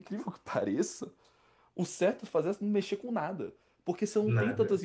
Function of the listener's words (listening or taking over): listening